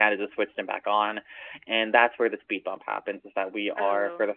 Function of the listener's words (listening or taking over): listening